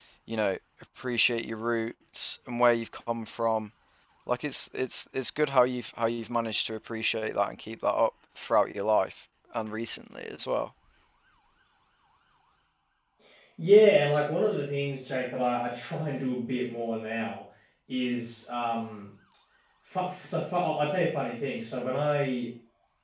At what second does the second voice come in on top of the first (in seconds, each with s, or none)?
none